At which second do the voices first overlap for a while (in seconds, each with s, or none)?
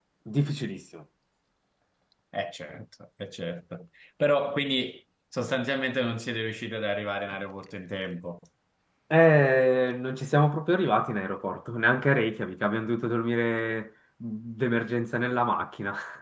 none